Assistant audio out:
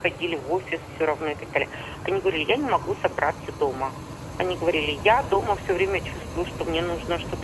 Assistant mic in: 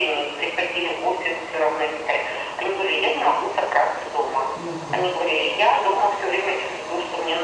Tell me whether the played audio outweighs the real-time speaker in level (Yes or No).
Yes